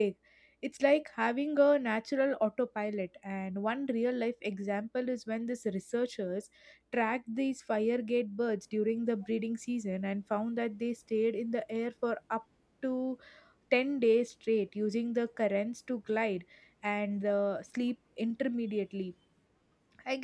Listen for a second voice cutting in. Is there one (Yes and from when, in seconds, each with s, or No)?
No